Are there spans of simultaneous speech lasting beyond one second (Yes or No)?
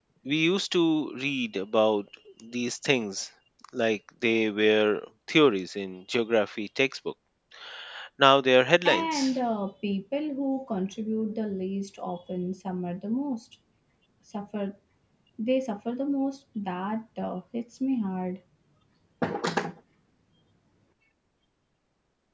No